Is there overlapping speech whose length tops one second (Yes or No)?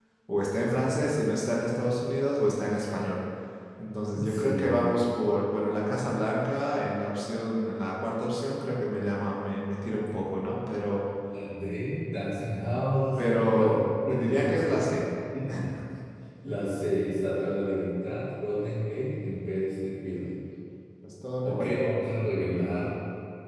Yes